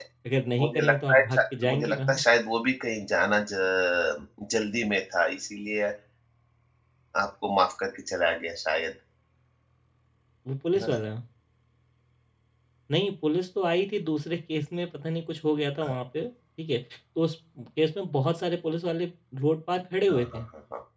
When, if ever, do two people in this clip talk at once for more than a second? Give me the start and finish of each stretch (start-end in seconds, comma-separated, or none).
0.6-2.2